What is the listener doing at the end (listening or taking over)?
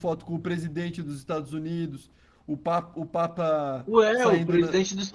taking over